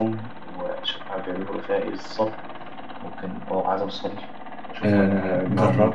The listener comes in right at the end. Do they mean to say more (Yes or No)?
Yes